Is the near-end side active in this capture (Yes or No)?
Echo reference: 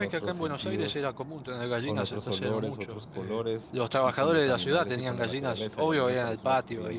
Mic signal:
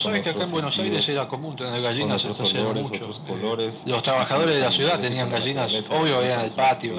No